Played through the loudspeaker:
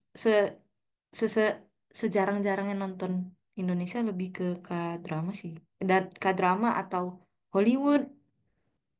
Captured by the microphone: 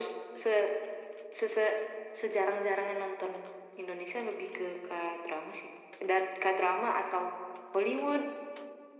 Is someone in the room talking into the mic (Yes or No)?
No